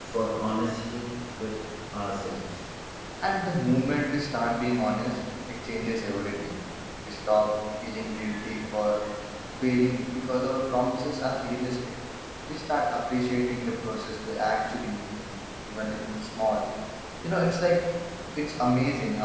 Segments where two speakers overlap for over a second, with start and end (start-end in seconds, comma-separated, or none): none